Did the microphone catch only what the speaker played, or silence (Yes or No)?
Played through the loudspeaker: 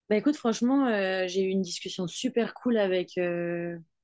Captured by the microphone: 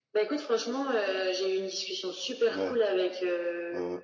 No